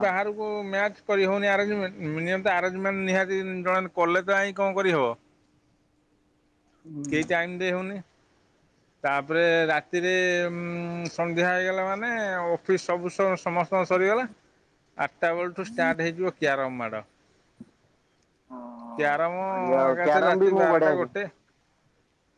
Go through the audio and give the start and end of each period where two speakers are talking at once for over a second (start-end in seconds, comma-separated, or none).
19.5-20.9